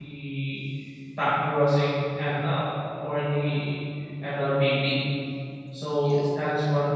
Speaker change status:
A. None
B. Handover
A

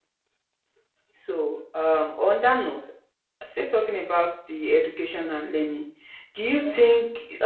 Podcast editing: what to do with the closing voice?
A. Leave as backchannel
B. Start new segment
A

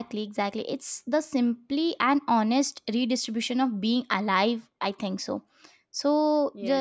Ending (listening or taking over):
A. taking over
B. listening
B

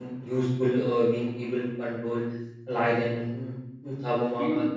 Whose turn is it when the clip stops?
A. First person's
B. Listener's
A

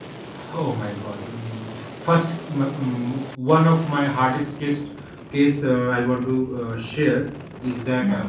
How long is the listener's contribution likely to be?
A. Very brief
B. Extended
A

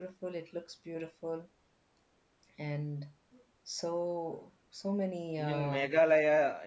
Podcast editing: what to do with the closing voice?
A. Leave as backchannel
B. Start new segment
B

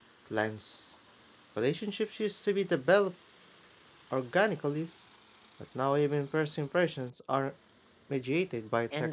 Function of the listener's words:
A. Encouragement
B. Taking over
B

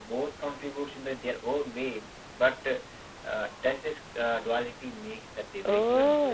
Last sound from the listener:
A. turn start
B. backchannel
A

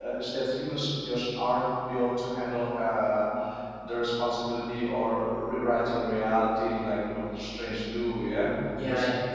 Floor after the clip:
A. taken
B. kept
A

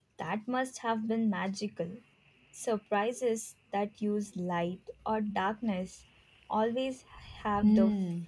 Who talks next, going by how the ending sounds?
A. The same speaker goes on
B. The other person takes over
B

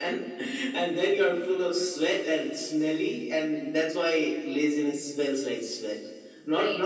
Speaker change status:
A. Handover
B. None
B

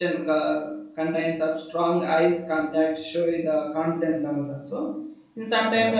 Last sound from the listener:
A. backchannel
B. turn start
A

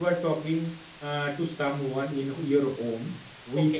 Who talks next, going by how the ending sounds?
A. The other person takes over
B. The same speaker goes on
B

